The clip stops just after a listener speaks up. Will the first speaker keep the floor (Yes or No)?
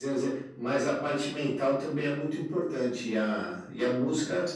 Yes